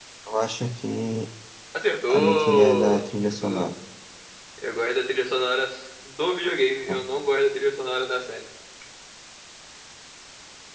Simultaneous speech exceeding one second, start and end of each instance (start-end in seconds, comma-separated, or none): 2.1-3.7